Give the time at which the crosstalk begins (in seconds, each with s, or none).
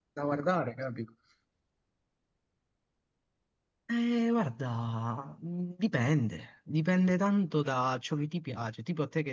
none